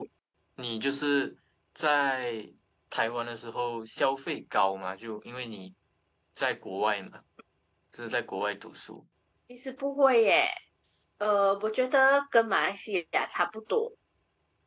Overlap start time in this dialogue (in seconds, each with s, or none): none